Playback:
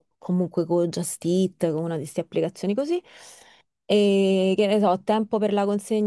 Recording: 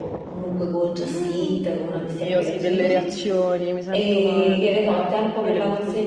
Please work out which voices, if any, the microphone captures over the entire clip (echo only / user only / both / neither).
both